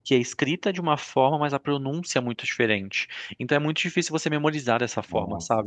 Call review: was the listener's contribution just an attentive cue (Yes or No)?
Yes